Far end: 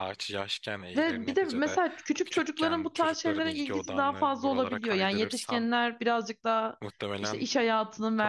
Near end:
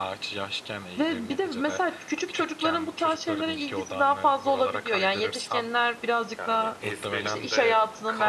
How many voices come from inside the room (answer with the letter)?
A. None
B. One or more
B